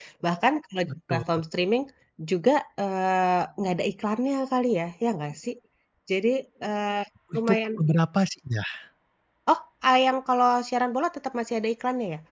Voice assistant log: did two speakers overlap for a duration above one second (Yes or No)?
No